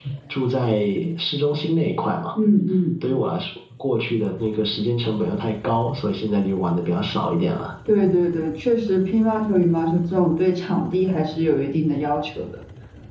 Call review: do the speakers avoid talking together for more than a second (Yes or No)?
Yes